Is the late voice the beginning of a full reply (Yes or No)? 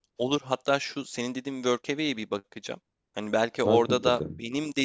No